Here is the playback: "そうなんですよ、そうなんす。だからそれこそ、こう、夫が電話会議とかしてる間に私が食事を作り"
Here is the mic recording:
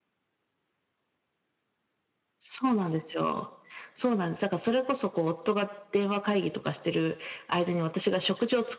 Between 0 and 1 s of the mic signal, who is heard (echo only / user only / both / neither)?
neither